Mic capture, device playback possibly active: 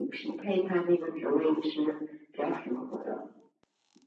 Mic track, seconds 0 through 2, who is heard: echo only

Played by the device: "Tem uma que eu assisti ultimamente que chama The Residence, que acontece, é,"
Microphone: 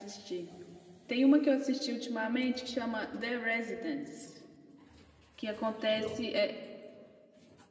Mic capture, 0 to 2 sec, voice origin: echo only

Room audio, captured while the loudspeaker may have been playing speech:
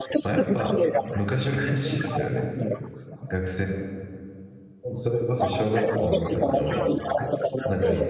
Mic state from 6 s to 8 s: both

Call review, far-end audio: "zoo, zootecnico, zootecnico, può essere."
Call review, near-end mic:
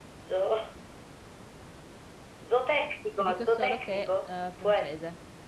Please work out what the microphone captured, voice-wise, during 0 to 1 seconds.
echo only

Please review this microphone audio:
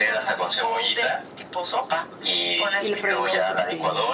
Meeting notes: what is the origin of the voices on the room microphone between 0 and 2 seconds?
echo only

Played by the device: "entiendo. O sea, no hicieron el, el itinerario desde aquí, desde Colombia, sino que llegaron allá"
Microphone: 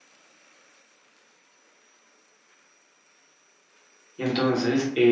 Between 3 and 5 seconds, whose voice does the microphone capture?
user only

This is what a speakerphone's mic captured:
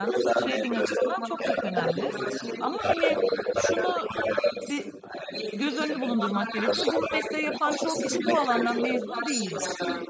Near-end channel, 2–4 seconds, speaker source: both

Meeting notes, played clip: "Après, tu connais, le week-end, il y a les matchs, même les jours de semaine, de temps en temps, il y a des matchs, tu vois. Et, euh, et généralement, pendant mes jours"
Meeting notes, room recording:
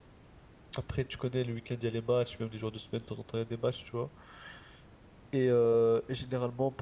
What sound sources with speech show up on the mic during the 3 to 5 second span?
echo only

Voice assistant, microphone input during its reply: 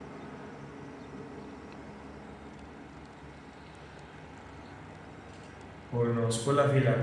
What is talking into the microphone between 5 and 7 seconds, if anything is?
user only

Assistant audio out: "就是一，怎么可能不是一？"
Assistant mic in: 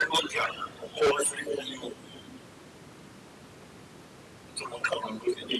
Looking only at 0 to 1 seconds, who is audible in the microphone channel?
echo only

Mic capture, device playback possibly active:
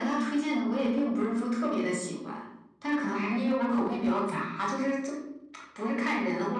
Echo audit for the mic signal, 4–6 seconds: echo only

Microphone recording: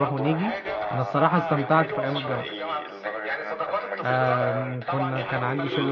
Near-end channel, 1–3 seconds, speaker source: both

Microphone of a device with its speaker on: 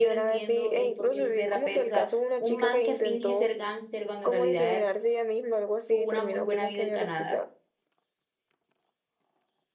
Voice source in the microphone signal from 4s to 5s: both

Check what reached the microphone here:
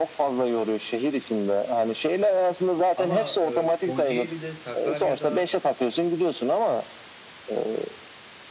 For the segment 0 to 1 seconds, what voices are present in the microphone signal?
echo only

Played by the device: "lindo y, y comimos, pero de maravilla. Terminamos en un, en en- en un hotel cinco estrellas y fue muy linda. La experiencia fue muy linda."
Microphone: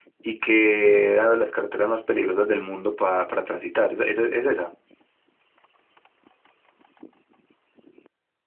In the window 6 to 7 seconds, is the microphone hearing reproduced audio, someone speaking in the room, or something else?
neither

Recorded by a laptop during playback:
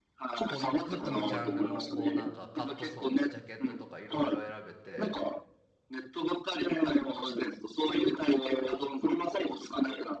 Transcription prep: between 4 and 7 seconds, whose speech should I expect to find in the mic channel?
both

